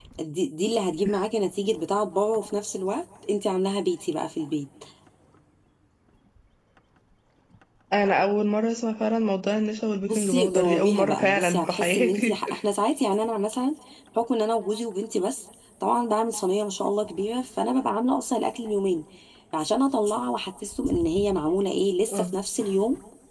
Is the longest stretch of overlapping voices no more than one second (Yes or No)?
No